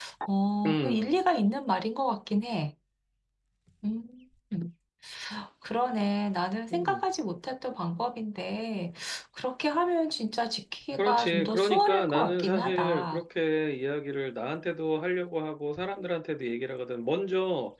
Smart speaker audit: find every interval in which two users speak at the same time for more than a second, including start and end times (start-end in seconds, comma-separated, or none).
11.0-13.2